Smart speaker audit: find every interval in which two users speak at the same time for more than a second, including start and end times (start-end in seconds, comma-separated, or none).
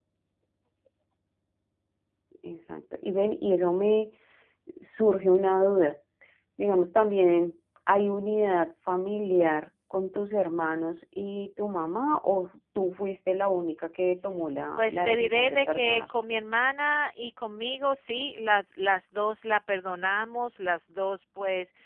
14.8-16.0